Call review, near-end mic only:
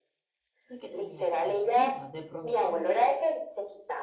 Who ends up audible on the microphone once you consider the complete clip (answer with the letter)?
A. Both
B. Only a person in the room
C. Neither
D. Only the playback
A